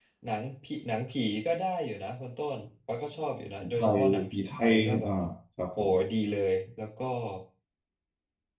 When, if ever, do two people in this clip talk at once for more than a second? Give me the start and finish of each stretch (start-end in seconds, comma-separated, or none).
3.8-5.1